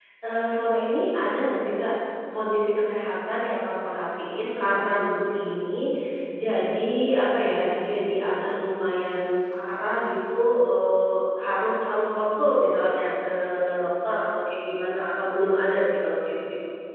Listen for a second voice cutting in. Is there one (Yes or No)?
No